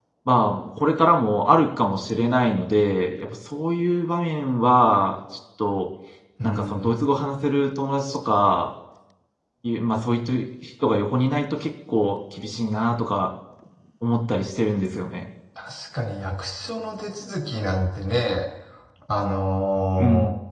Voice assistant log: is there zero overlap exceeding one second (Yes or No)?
Yes